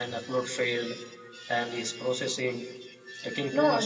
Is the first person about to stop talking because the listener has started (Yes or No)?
Yes